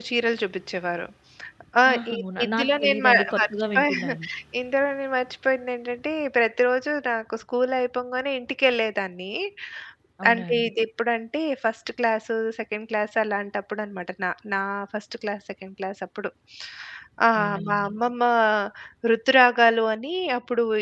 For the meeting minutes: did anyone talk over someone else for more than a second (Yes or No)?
Yes